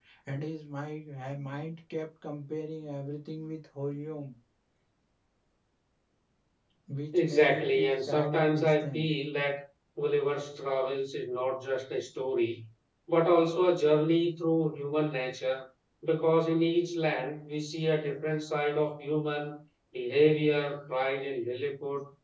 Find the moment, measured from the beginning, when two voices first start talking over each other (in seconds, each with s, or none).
7.1 s